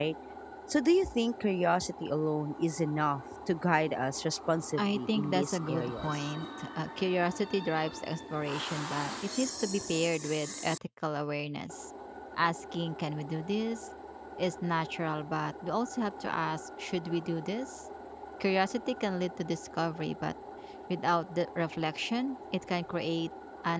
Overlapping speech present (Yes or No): Yes